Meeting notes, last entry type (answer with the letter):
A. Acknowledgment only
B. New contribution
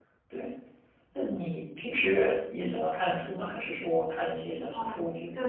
B